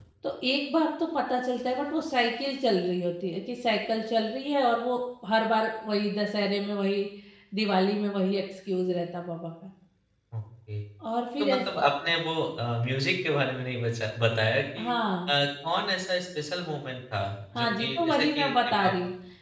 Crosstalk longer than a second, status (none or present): present